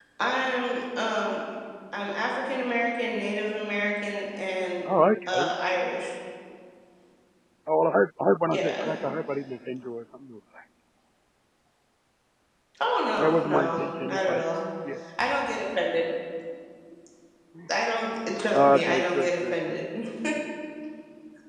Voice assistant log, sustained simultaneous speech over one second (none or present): present